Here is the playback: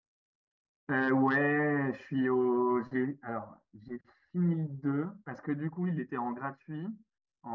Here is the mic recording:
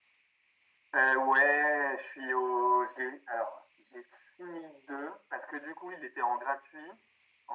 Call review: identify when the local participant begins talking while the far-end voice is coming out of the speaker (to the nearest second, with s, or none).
none